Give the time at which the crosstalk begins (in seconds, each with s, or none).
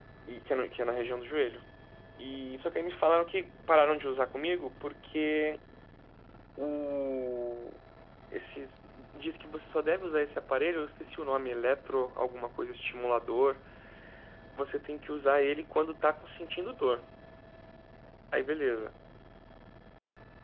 none